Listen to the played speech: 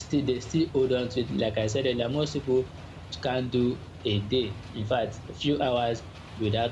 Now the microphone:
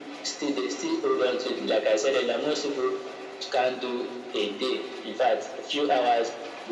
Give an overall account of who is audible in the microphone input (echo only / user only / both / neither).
echo only